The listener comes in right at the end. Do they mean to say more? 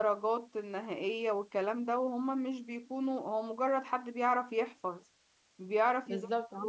Yes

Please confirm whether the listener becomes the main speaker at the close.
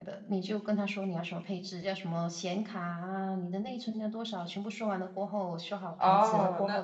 Yes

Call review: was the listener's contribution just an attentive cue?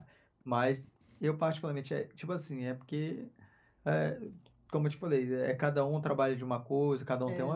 Yes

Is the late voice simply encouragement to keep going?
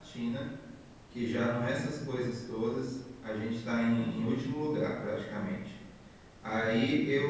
Yes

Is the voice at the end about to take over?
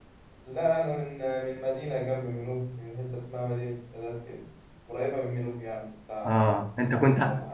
Yes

